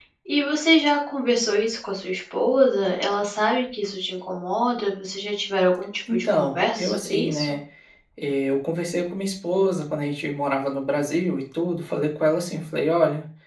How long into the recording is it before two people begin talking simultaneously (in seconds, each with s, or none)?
6.1 s